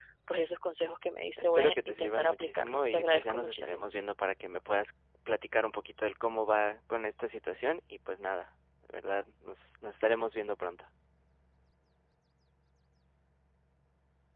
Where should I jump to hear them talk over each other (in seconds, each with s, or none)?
1.4 s